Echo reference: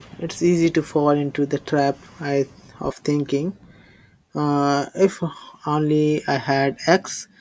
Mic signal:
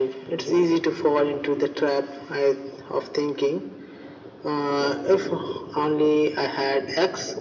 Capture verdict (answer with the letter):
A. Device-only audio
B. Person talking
A